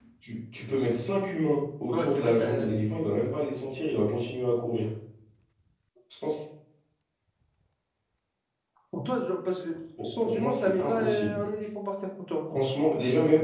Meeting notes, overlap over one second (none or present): present